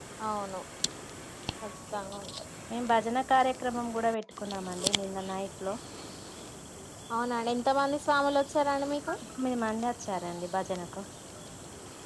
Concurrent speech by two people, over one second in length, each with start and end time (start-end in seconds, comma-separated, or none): none